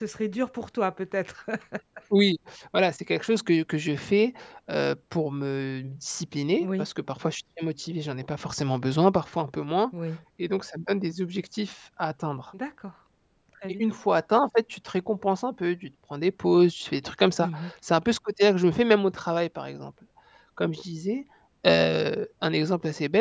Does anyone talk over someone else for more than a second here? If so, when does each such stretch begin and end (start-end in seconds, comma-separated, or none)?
none